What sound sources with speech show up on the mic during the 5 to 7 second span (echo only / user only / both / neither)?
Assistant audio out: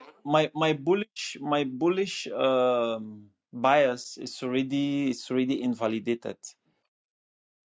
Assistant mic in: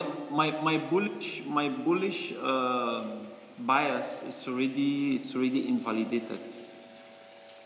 echo only